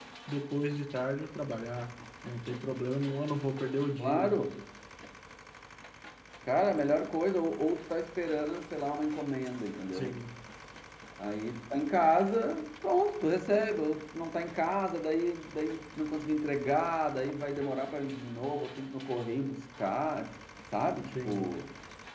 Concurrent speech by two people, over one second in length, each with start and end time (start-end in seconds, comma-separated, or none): none